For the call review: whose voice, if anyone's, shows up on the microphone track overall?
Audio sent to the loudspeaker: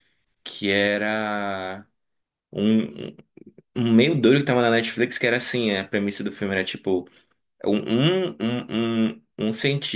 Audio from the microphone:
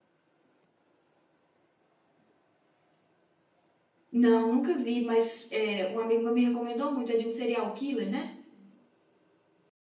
user only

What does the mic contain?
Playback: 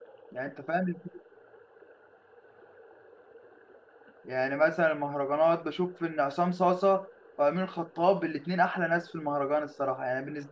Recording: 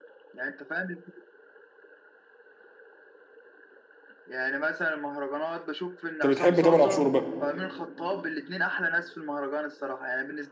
both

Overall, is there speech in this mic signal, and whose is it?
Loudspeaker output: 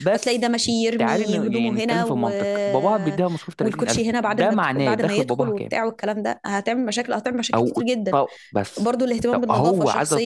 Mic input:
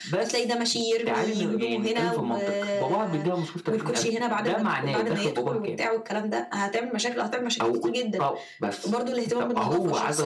echo only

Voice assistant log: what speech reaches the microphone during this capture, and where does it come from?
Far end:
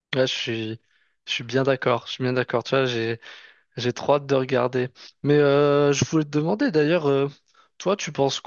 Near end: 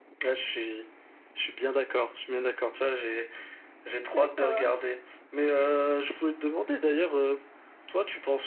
both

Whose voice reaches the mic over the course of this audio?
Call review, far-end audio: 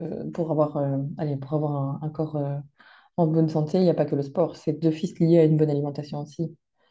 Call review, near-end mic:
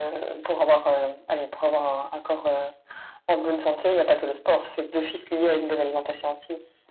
echo only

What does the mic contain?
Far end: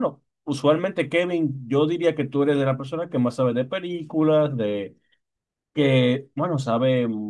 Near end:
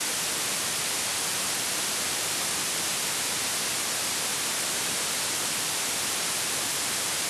neither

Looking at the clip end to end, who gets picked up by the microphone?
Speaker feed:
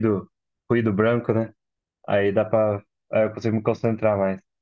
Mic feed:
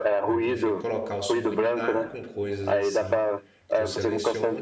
both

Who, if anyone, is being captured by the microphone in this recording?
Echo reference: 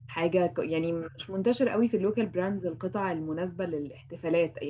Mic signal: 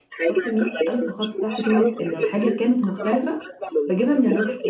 both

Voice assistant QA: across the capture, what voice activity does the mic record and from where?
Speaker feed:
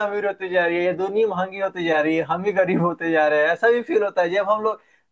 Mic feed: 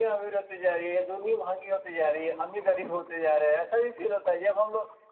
echo only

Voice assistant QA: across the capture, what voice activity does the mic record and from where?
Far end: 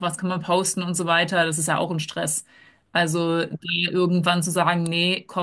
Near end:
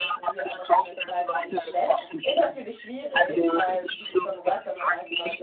both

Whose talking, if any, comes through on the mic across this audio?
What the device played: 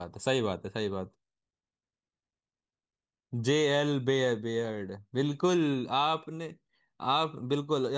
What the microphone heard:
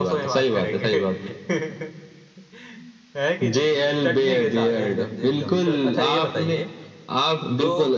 both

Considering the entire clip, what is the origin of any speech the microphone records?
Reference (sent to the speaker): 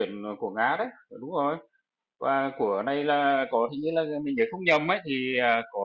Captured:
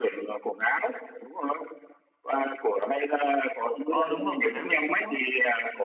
both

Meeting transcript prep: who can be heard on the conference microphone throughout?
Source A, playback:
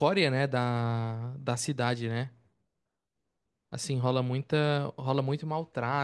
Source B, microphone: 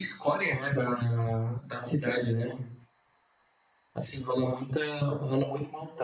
echo only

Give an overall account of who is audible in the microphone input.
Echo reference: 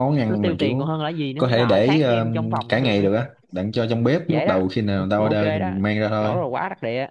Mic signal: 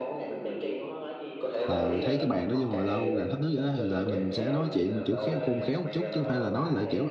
both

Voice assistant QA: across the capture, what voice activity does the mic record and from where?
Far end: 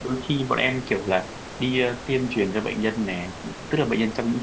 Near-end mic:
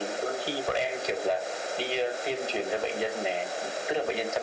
echo only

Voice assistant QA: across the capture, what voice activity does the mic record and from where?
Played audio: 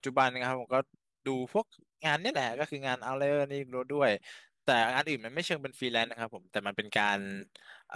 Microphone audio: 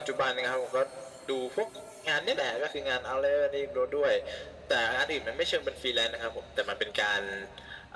echo only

